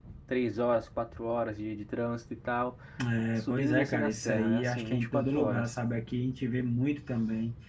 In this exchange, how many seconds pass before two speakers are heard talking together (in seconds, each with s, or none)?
3.4 s